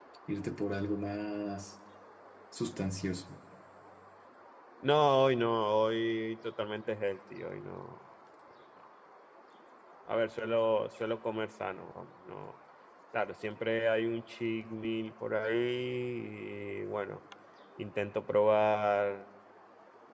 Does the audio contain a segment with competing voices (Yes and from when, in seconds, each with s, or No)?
No